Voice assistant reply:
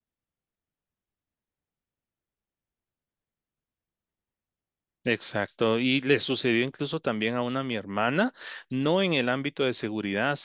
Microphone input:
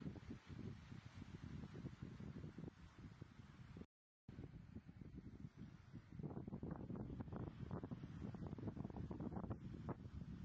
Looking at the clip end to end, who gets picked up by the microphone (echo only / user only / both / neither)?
neither